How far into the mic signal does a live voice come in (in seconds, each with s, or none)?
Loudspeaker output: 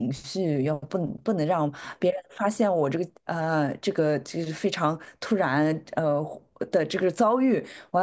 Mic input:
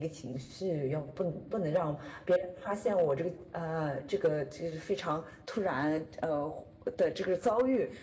none